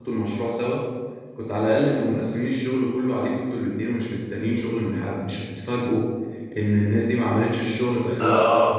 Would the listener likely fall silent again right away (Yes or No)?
No